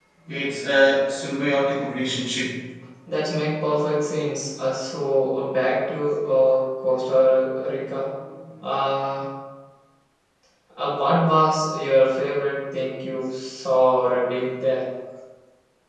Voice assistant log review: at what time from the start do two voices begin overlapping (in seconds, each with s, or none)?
none